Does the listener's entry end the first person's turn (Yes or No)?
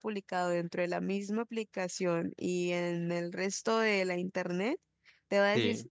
No